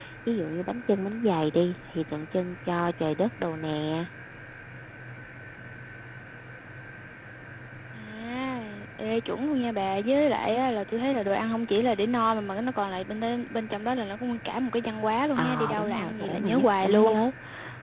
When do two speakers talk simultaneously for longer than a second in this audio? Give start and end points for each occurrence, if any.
15.4-17.1

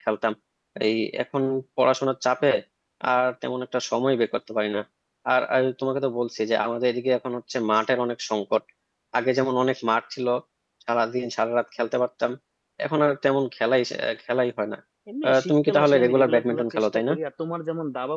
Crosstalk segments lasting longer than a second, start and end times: 15.2-17.1

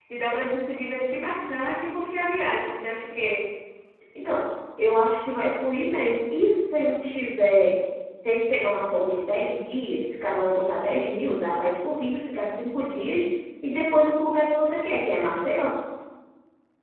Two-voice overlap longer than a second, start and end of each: none

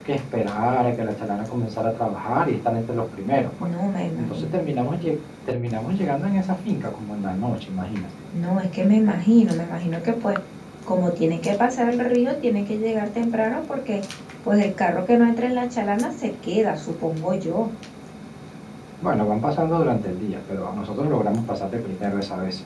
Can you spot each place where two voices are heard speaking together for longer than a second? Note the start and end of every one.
none

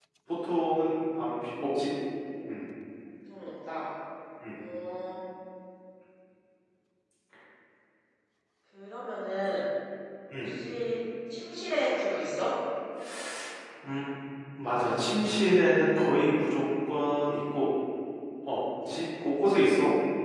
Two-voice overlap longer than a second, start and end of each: none

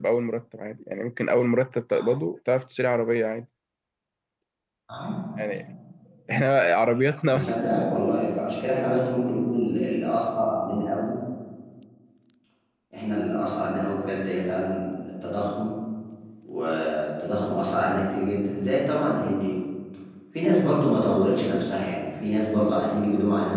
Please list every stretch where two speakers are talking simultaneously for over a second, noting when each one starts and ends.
none

